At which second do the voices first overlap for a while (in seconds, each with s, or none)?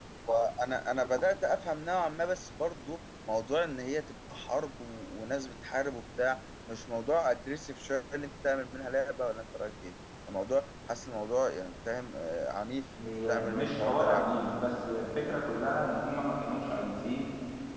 13.0 s